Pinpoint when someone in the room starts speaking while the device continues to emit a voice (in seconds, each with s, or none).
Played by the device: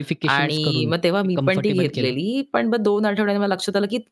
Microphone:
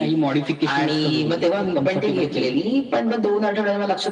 none